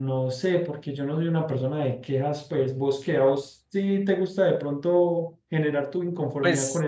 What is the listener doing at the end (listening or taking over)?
taking over